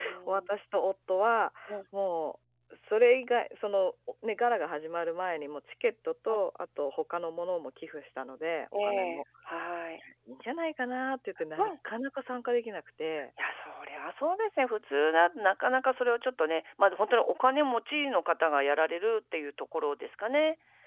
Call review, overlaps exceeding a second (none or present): none